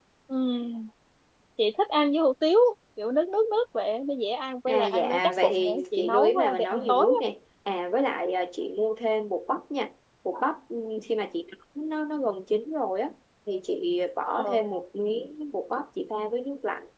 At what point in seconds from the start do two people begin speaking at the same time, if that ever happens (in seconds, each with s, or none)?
4.7 s